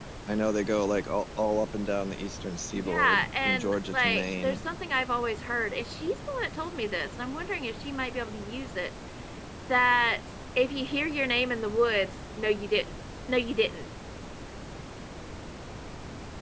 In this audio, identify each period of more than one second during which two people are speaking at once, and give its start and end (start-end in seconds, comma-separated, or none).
2.8-4.6